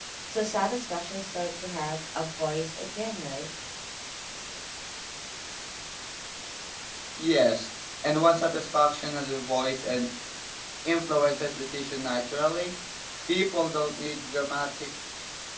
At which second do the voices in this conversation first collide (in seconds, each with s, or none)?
none